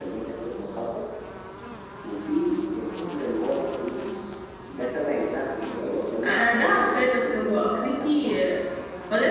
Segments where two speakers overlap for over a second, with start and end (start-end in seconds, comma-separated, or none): 6.2-8.1